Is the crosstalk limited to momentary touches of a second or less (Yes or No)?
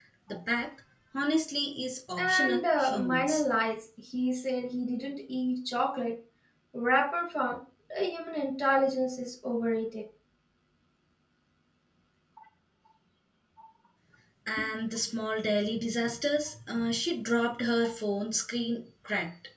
No